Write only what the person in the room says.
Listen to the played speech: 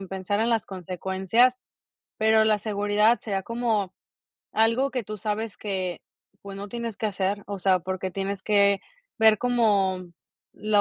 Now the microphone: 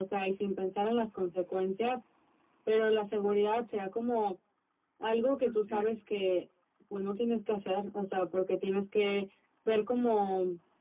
Así es.

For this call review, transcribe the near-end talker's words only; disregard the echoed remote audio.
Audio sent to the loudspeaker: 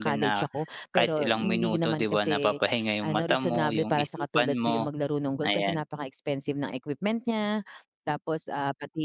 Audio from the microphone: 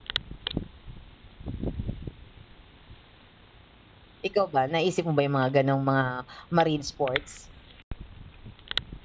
Ikaw ba naisip mo ba yung mga, ganong, mga marine sports?

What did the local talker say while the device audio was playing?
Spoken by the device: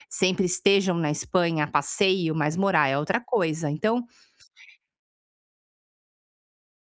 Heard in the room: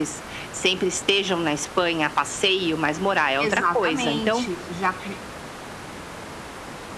exatamente. Já que

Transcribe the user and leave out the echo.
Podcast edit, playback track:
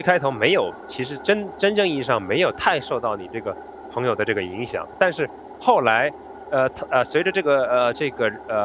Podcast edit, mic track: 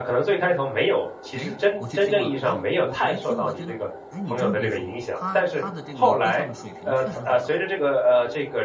诶，我去听了，然后我我一听我还觉得诶，你真别说，她她的这个歌唱的水平确实很高。

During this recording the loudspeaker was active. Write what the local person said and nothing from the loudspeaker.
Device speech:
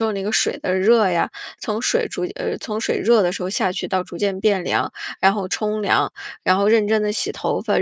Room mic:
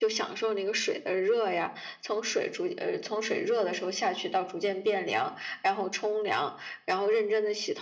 none

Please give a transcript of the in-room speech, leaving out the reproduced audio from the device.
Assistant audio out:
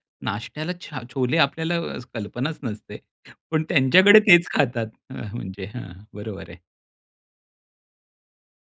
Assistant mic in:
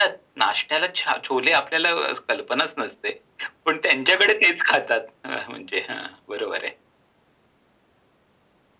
none

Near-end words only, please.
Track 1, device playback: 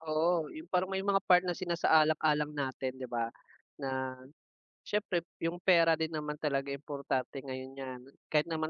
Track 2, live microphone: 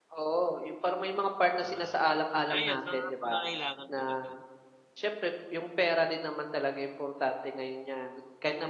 Um, ayun mga pangangailangan muna talaga.

